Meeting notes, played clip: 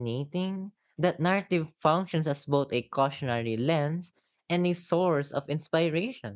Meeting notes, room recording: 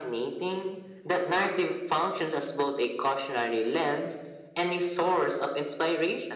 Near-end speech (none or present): none